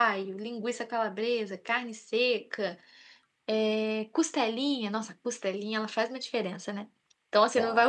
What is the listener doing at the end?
listening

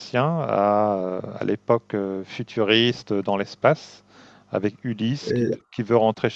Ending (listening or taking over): listening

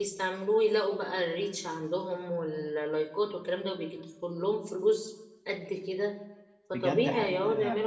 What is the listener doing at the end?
taking over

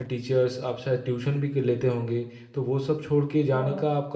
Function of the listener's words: listening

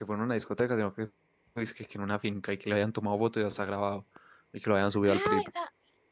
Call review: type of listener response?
taking over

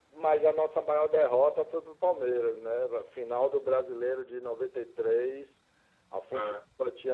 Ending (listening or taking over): listening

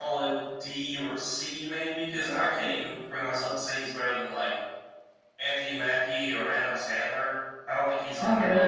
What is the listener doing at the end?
taking over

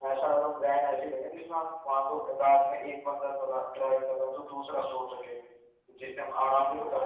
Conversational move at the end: taking over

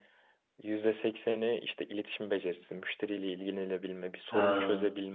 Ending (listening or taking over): listening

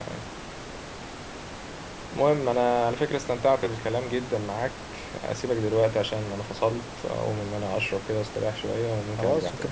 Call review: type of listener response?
taking over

